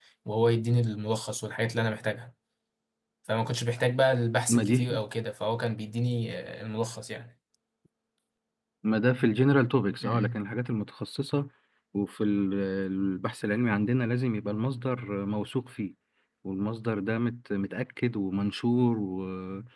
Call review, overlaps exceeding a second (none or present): none